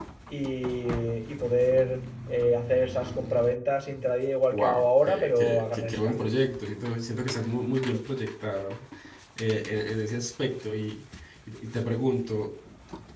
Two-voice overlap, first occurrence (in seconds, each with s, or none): 4.5 s